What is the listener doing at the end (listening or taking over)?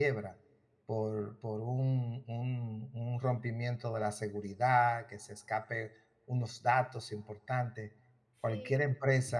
listening